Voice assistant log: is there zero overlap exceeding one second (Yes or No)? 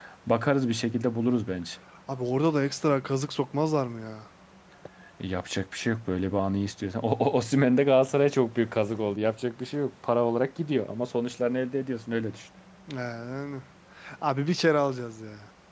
Yes